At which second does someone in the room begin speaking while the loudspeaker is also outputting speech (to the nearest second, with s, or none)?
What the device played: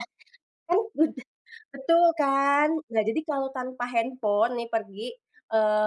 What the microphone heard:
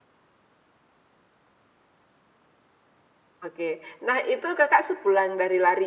3 s